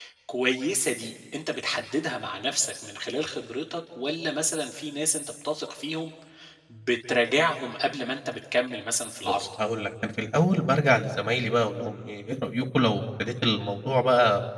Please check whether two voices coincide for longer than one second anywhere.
No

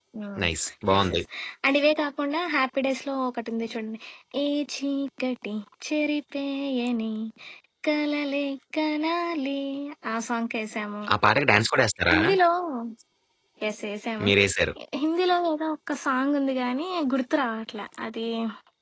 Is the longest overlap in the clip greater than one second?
No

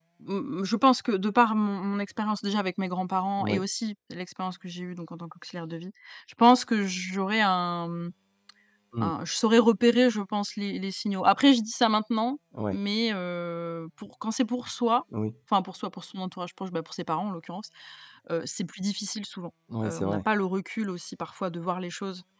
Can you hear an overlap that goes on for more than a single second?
No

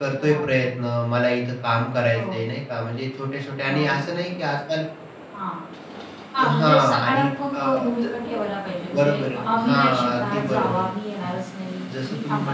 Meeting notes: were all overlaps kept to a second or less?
No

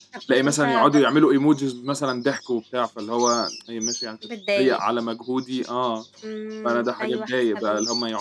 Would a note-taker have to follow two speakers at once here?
Yes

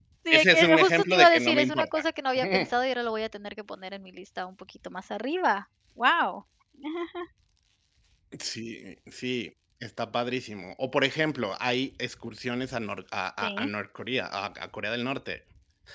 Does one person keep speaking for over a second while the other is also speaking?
Yes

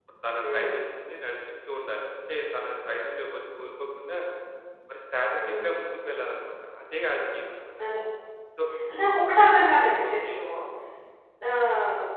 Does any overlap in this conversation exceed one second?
No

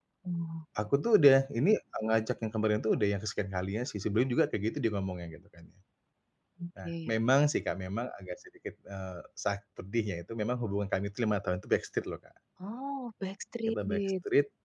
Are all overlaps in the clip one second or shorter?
Yes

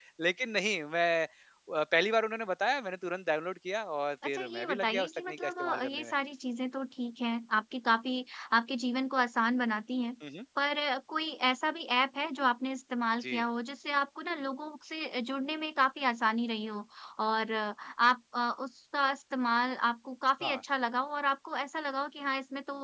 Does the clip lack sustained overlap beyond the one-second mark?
No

